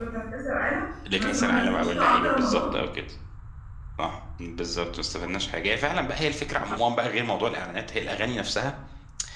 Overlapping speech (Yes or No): Yes